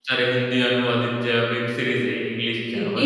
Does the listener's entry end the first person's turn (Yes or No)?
Yes